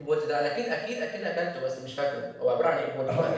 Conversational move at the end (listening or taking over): taking over